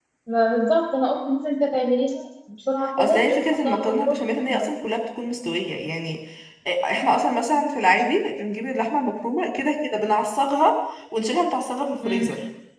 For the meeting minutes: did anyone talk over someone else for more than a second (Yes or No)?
Yes